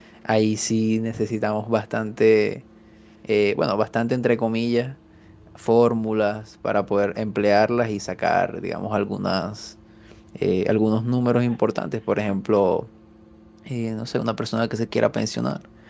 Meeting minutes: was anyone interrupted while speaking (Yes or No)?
No